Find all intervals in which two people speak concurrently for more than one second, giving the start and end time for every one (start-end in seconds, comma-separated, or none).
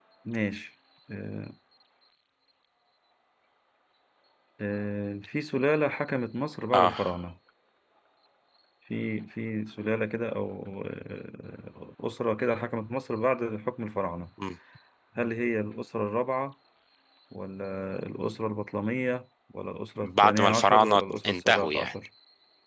20.0-21.9